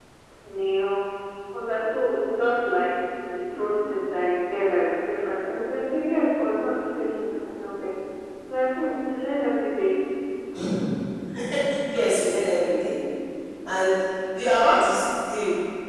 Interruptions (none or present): none